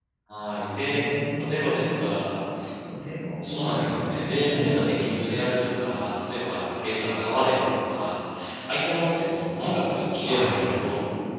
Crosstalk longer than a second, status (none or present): present